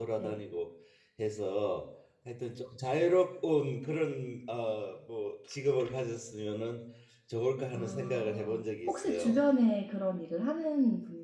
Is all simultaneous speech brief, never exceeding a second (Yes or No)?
No